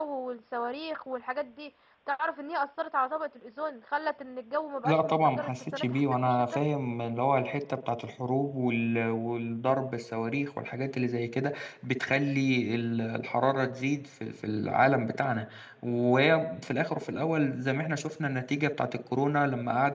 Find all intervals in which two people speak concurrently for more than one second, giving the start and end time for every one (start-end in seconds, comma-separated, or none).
4.9-6.6